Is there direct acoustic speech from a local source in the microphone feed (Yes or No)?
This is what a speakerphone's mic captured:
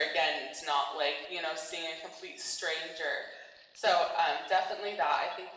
No